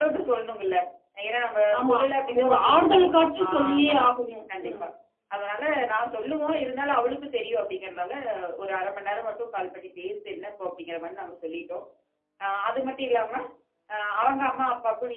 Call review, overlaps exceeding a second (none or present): present